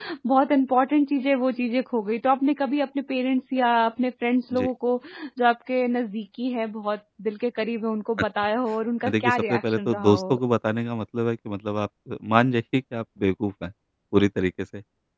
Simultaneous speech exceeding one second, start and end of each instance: 9.1-10.4

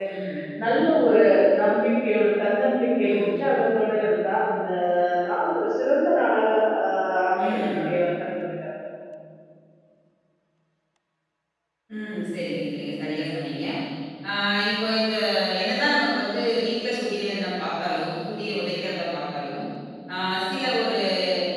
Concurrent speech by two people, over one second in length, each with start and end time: none

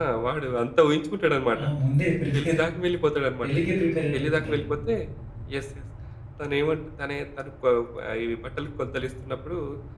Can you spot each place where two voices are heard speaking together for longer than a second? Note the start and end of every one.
none

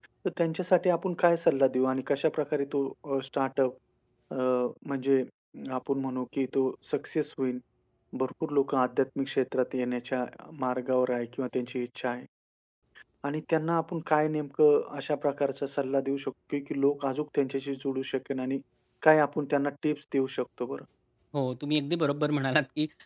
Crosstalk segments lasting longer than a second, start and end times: none

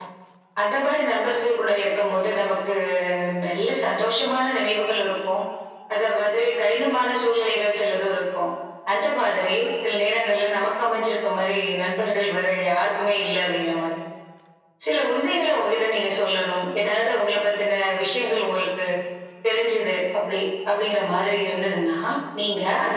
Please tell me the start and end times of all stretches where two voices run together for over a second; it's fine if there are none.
none

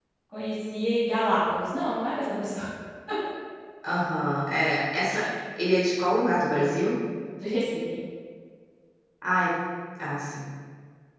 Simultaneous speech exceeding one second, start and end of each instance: none

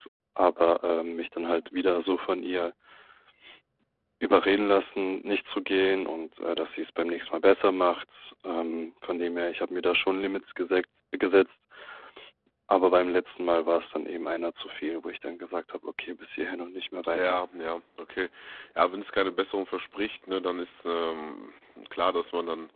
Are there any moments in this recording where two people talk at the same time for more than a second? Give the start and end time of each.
none

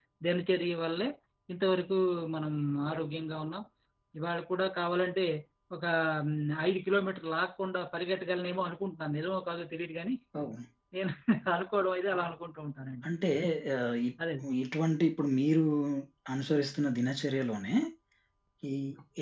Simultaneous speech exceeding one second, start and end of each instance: none

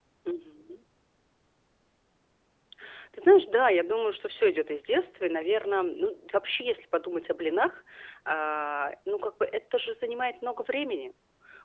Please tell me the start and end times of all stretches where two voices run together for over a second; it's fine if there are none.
none

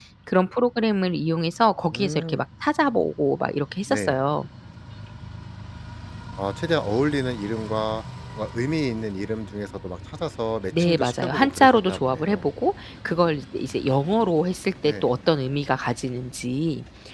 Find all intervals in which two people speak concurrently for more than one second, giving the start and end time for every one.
10.8-12.4

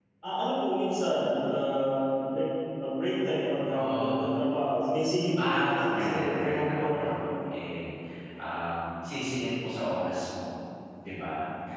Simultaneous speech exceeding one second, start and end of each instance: 5.4-7.1

